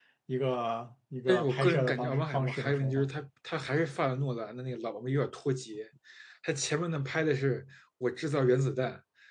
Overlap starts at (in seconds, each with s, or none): 1.3 s